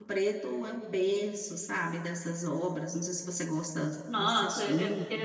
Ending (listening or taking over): taking over